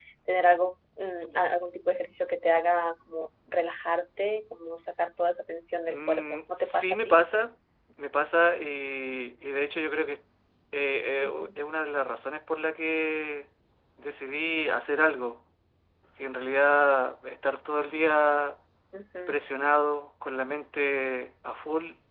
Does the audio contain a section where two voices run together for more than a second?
Yes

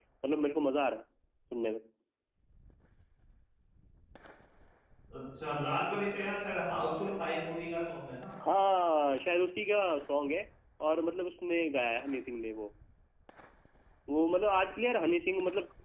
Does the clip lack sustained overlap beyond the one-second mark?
Yes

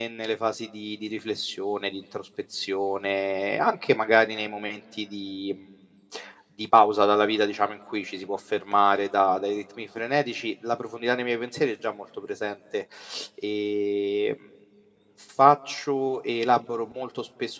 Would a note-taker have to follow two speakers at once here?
No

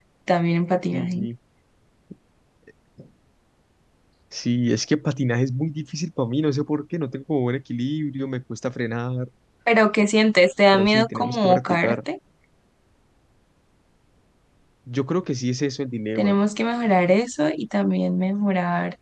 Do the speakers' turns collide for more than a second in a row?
Yes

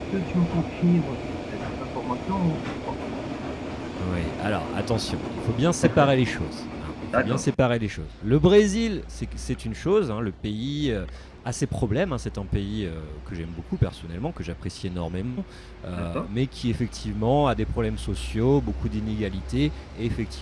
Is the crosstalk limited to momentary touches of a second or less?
Yes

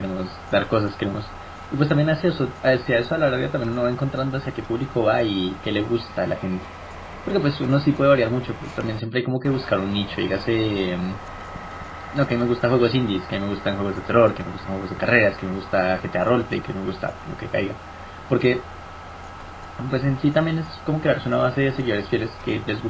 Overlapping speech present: No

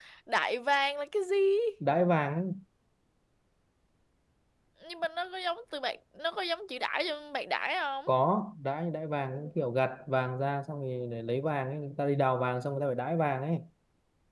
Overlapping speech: No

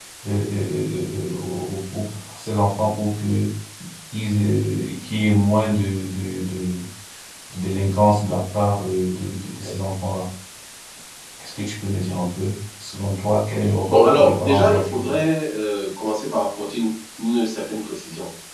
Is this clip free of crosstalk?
No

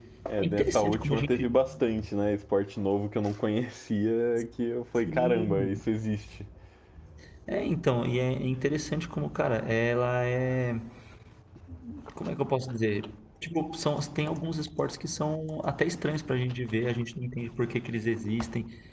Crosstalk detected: Yes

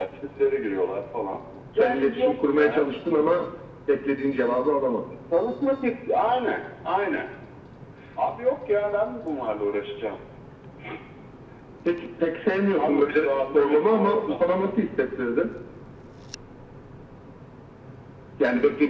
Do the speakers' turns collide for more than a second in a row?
Yes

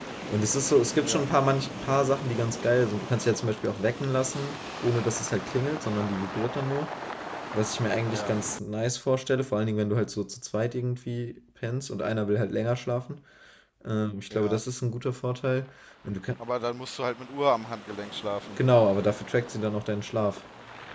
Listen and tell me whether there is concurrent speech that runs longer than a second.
No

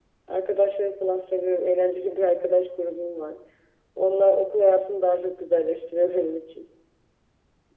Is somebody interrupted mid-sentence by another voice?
No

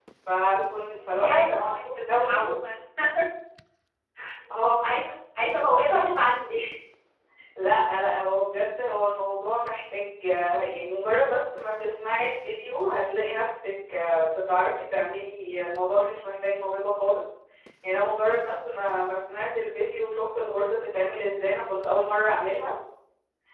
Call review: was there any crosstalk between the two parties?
Yes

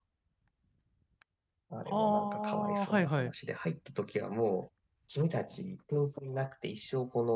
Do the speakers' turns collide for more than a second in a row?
Yes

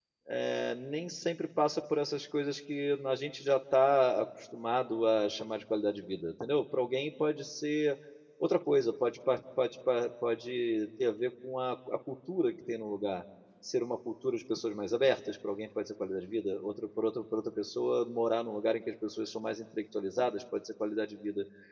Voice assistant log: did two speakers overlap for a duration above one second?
No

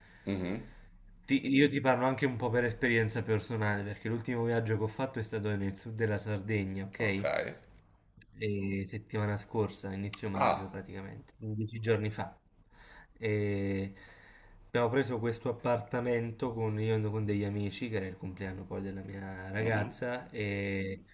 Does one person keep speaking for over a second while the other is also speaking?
No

